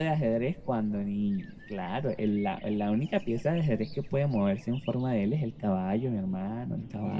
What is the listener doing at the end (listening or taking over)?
taking over